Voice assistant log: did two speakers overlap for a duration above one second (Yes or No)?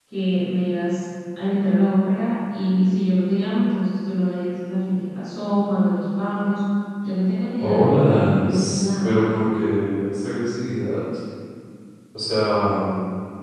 Yes